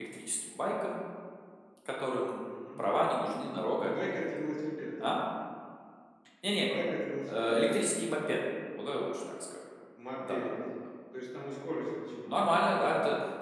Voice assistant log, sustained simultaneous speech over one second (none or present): none